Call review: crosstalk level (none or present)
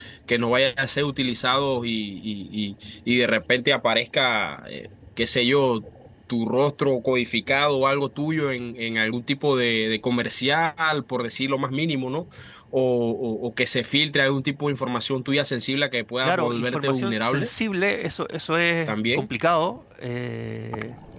present